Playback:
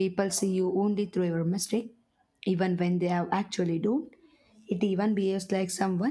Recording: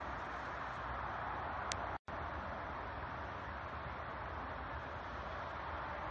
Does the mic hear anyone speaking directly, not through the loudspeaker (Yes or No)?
No